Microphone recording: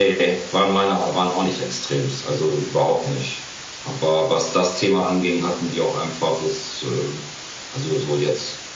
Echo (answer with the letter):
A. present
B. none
A